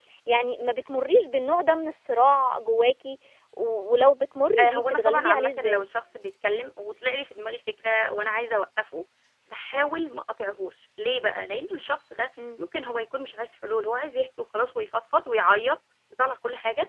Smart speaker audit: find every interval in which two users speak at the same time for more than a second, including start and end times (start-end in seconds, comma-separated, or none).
4.6-5.8